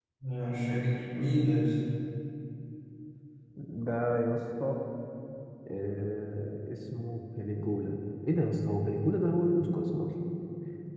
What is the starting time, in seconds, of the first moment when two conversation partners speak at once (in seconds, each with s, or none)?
none